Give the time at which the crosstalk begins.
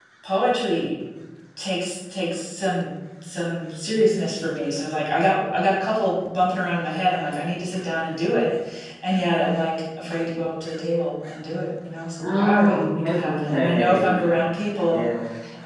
12 s

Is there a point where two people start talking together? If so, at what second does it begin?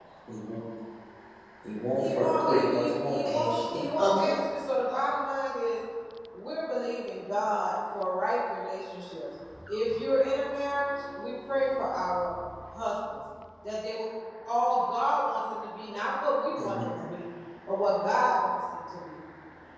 2 s

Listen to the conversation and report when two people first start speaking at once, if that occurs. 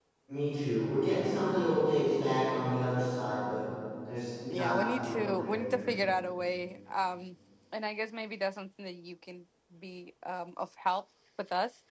5 s

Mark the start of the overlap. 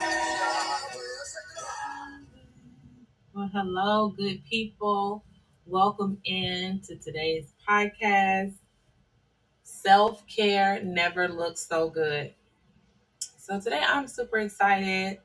none

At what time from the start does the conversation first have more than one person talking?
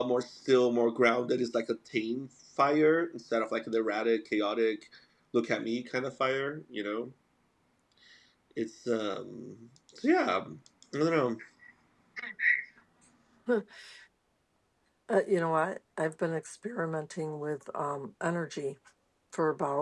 none

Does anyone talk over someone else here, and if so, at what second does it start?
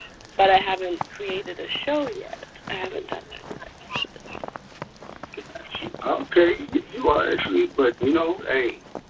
none

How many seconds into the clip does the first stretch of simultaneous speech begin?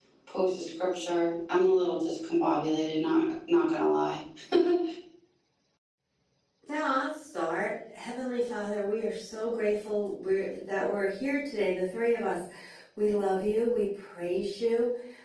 none

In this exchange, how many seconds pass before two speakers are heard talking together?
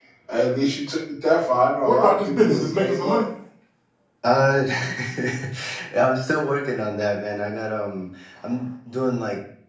2 s

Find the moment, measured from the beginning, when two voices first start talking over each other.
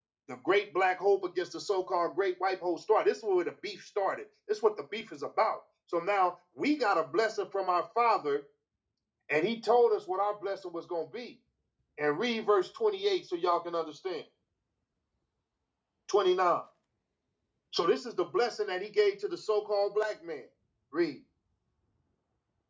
none

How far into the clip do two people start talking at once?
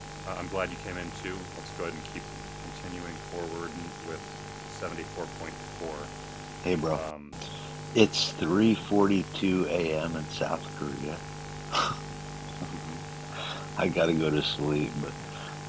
none

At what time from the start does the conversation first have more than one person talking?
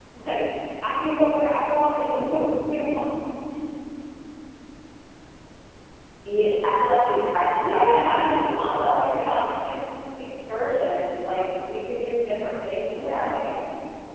8 s

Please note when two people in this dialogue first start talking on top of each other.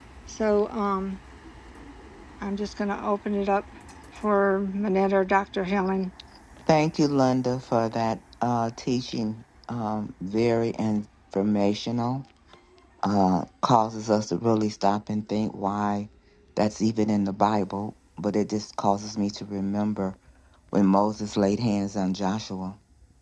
none

